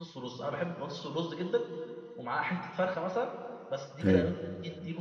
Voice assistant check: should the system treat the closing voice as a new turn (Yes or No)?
No